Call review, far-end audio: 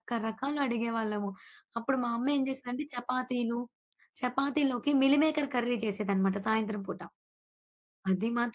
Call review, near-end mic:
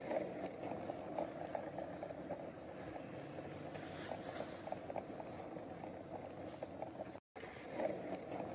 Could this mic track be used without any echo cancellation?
Yes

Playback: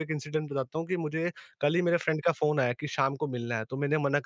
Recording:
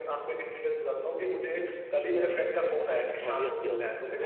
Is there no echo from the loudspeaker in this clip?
No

